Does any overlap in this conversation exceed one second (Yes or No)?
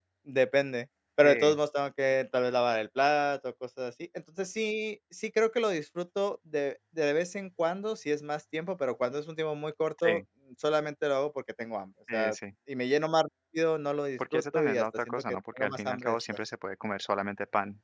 Yes